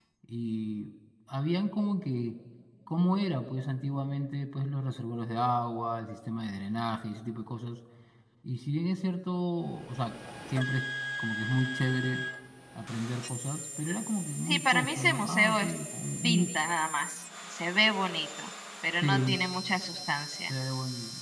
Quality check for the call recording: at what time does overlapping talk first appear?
14.5 s

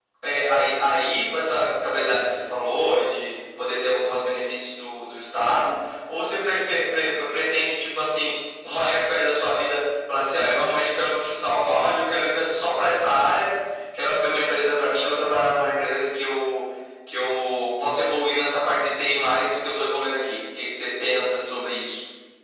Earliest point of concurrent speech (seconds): none

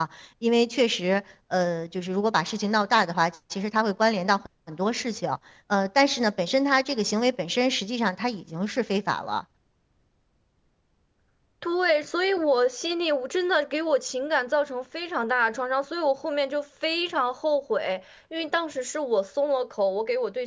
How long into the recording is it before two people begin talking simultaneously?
none

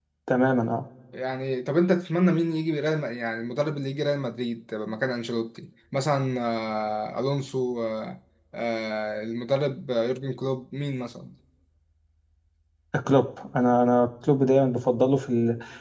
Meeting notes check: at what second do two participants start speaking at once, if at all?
none

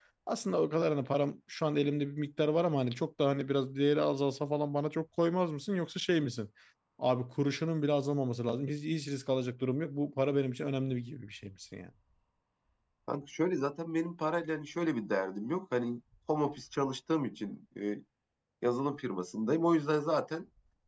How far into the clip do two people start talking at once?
none

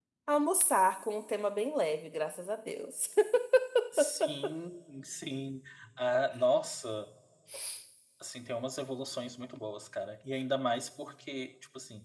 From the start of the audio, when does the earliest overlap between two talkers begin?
none

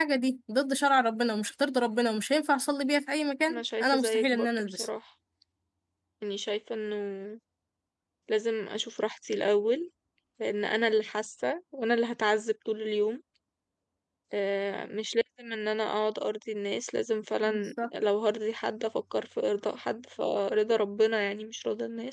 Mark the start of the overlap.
3.5 s

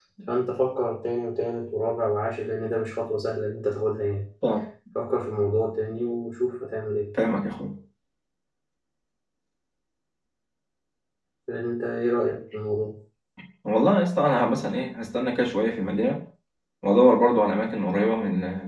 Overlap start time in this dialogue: none

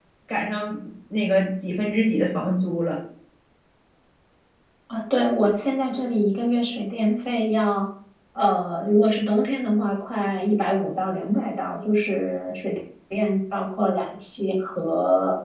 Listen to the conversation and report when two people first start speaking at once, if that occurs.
none

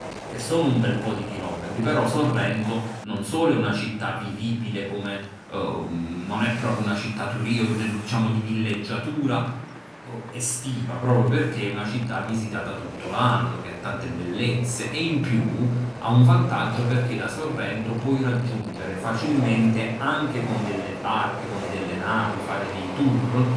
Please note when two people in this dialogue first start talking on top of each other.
none

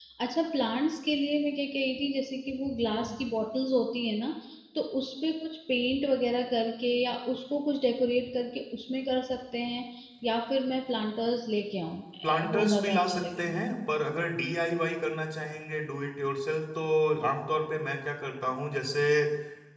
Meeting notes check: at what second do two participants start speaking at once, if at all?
12.2 s

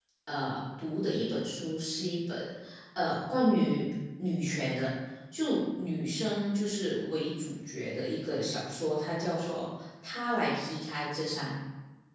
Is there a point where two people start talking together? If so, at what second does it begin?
none

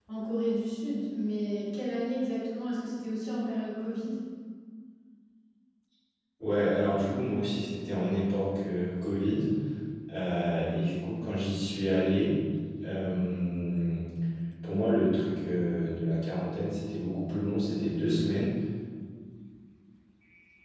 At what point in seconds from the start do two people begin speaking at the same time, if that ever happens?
none

